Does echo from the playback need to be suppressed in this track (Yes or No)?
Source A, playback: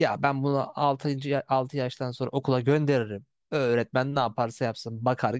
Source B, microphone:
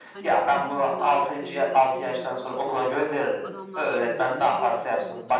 Yes